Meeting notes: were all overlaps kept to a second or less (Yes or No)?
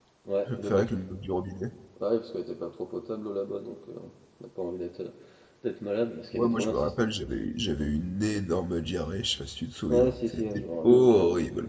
No